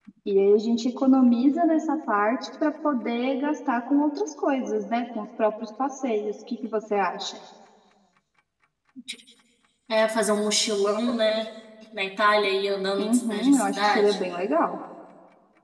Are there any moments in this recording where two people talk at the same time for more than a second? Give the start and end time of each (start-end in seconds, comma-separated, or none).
13.0-14.2